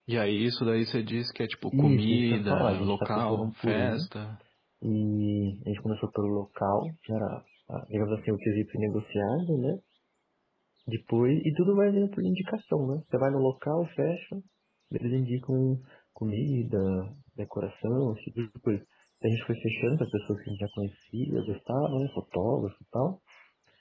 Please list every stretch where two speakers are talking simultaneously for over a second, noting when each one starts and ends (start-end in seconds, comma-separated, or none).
1.8-4.1